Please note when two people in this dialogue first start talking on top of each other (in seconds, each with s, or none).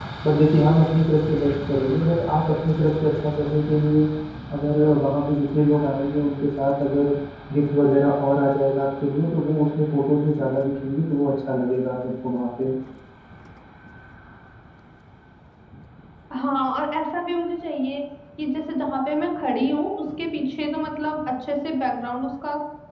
none